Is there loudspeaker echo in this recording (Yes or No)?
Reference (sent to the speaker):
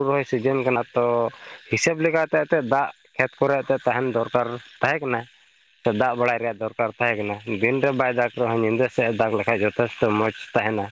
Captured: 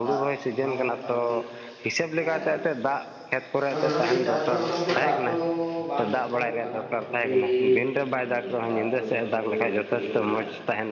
Yes